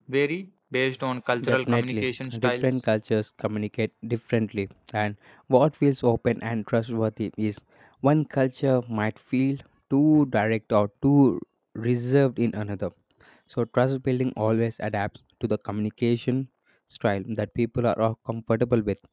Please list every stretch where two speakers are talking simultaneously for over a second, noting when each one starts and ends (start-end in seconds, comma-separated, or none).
1.4-2.8